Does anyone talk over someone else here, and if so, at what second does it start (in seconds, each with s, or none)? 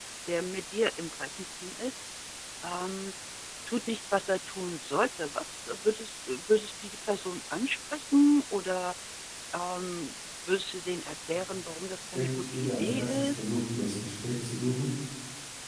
12.0 s